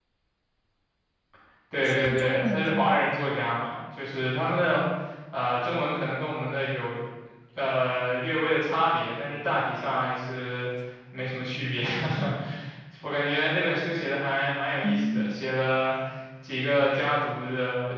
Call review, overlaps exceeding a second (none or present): present